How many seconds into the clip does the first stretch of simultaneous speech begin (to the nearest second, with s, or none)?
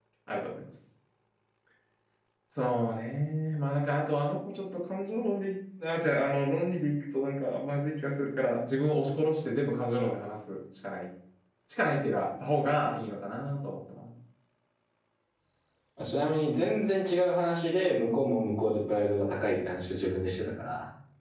none